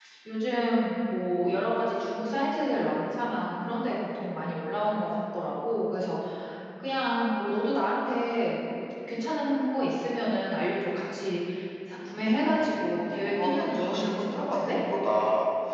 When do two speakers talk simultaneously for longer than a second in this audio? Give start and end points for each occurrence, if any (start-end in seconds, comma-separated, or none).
12.5-14.8